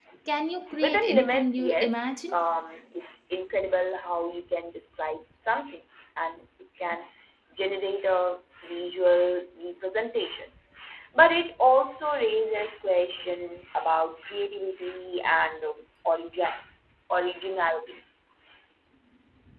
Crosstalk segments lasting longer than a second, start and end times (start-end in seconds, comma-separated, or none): 0.8-2.4